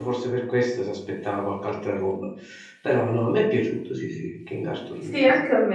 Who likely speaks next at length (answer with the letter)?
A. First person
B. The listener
B